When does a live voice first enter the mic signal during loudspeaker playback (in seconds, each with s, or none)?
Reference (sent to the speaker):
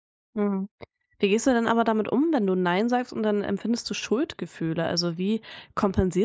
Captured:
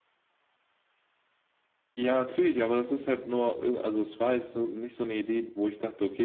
2.0 s